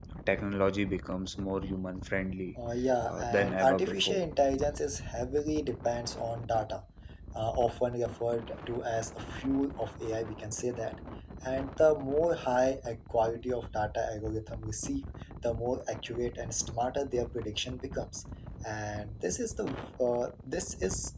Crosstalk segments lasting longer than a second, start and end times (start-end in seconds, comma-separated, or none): 3.1-4.3